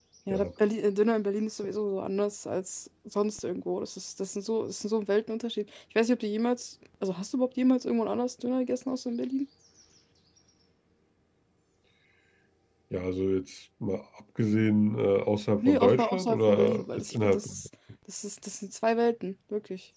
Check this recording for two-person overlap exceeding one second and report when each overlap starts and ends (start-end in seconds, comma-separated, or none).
15.6-17.5